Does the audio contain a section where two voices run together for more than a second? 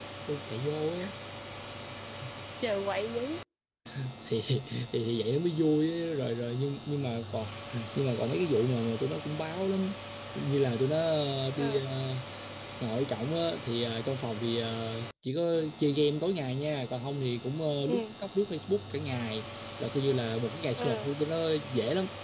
No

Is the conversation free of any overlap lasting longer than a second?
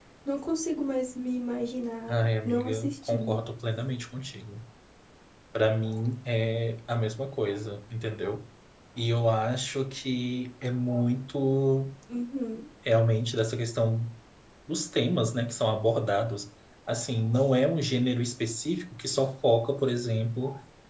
No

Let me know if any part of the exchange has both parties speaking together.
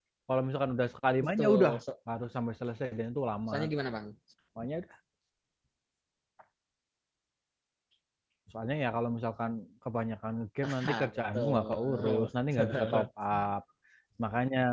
Yes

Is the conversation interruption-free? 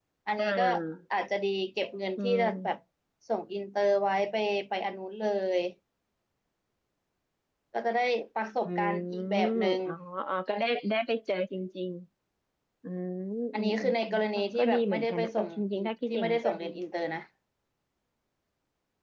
No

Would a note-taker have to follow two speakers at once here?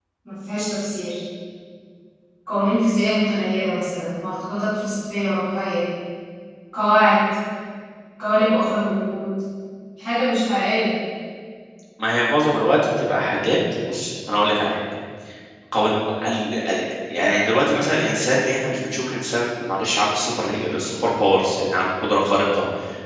No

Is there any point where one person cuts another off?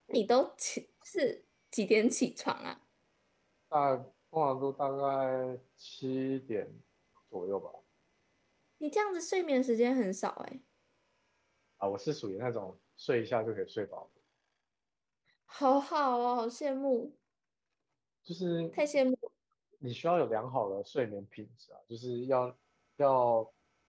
No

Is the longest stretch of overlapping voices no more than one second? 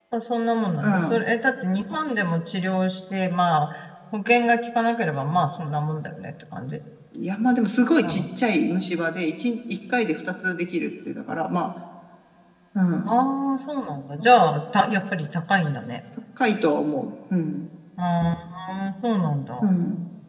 Yes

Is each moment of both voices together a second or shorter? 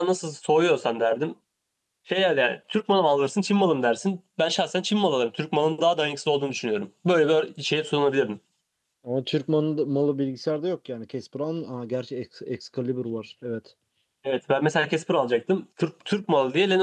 Yes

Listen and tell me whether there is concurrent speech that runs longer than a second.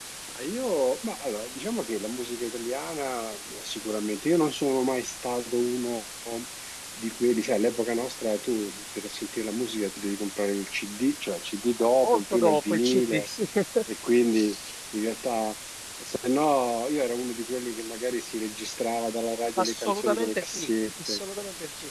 Yes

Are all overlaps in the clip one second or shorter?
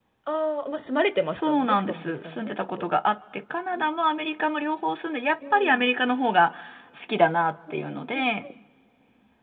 No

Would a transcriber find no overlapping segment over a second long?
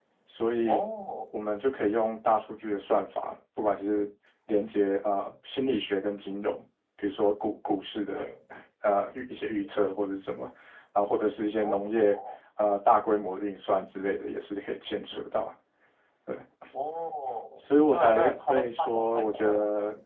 No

